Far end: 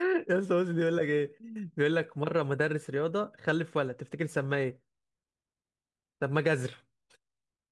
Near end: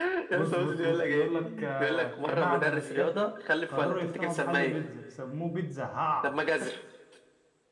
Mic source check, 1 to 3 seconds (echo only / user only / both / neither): both